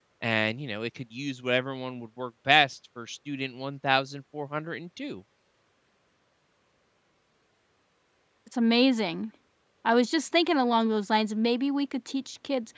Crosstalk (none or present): none